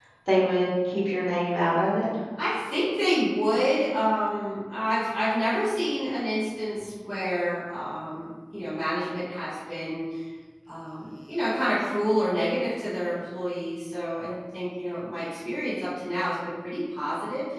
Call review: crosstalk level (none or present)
none